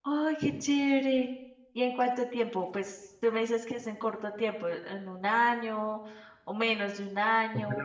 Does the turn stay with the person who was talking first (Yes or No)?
No